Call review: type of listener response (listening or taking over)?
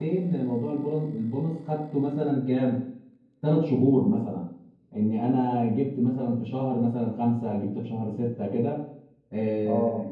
listening